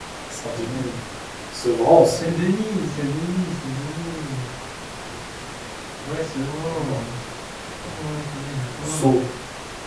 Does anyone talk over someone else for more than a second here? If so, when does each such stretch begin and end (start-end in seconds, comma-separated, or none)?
none